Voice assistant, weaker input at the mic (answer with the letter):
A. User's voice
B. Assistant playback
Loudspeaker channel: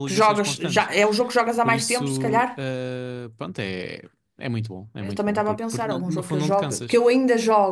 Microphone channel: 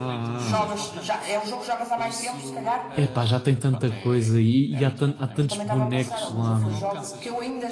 B